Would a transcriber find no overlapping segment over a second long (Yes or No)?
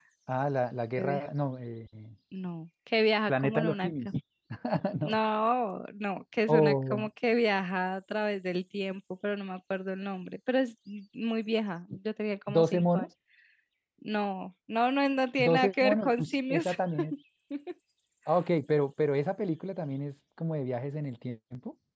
No